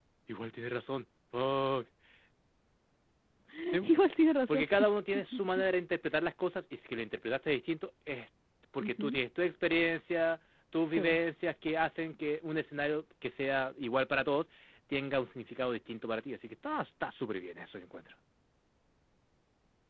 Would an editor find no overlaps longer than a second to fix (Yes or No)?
Yes